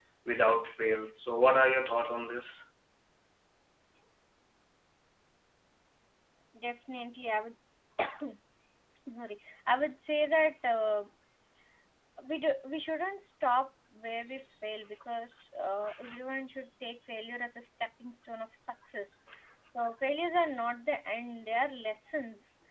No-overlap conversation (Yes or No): Yes